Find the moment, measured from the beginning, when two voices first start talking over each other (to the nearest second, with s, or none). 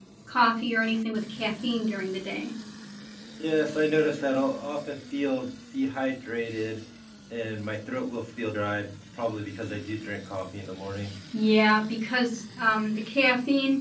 none